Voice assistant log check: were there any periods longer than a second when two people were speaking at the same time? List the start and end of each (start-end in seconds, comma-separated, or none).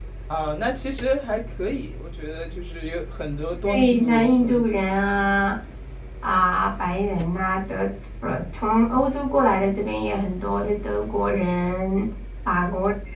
3.7-4.9